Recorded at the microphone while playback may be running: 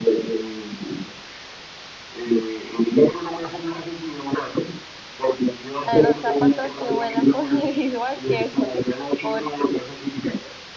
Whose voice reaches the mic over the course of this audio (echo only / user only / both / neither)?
both